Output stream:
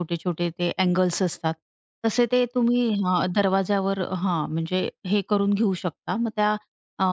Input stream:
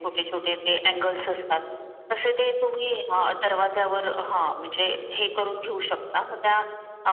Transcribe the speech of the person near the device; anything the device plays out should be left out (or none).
none